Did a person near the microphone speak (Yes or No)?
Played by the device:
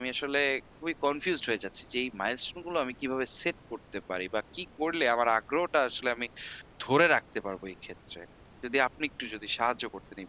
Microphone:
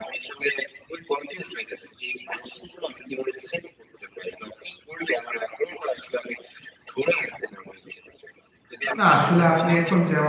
Yes